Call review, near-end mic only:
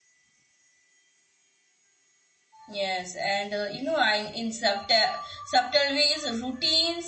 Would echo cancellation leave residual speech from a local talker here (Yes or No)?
Yes